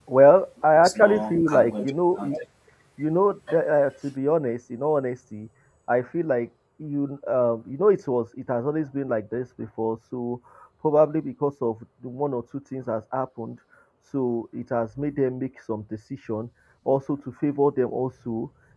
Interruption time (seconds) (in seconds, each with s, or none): 0.8 s